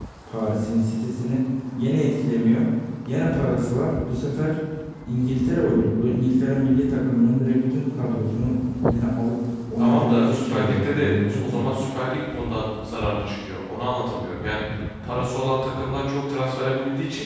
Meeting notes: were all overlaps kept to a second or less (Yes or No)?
No